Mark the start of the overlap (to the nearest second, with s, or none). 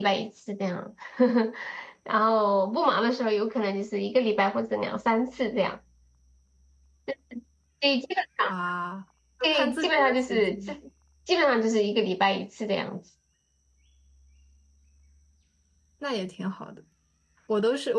9 s